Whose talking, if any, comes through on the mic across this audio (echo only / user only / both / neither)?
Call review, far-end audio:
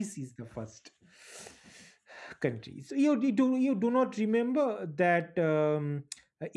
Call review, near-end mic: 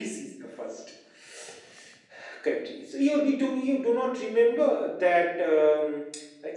echo only